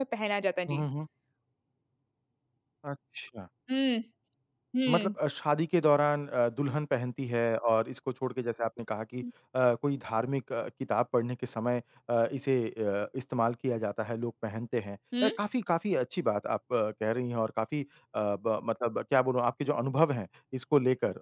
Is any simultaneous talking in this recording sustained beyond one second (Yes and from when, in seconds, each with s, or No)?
No